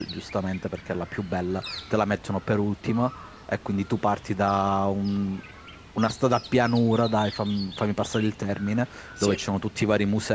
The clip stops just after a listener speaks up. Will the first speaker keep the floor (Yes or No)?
Yes